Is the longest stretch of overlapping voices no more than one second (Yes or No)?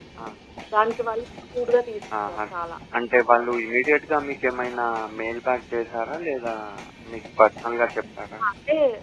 Yes